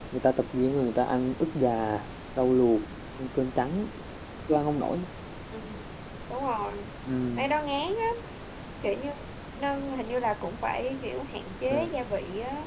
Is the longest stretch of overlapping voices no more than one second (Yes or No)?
Yes